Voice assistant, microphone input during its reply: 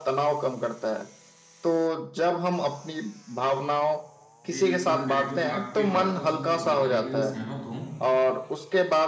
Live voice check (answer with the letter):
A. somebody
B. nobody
A